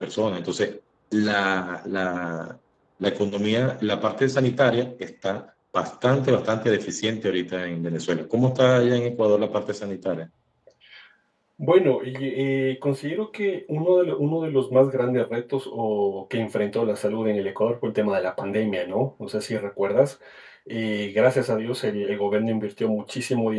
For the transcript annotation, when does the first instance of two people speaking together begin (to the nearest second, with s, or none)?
none